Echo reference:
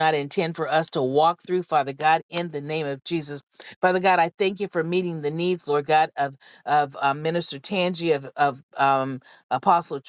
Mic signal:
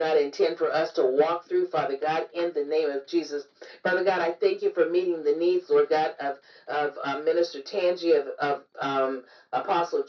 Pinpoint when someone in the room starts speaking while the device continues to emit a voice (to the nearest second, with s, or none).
none